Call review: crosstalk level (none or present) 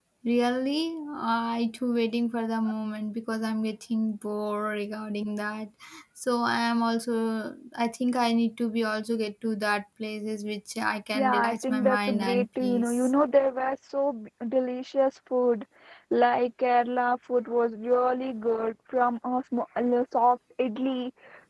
present